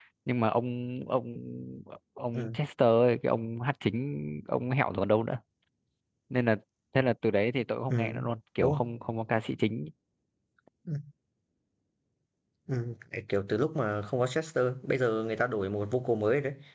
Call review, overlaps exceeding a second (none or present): none